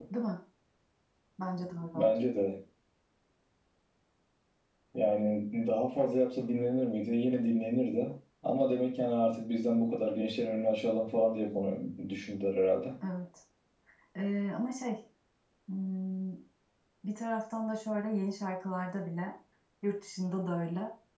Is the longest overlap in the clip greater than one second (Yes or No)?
No